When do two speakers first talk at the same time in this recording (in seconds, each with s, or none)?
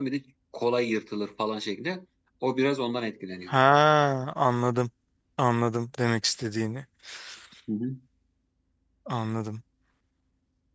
none